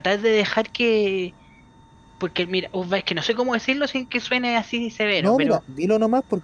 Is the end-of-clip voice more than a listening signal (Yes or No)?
Yes